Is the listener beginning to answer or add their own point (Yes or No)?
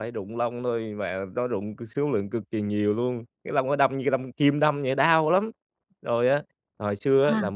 No